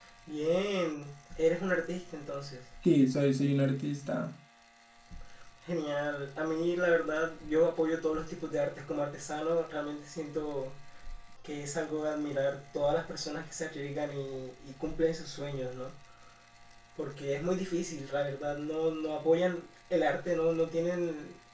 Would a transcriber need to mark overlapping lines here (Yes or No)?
No